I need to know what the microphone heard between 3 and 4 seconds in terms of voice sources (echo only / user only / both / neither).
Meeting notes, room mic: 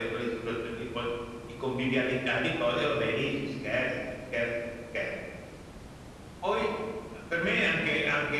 echo only